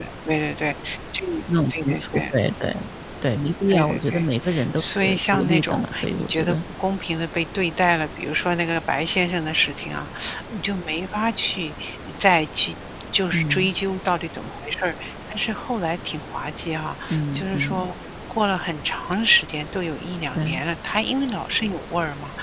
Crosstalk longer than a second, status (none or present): present